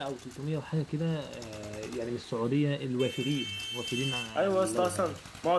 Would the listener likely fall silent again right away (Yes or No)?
No